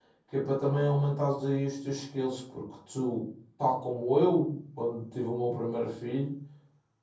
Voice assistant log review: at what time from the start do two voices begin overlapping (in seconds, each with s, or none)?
none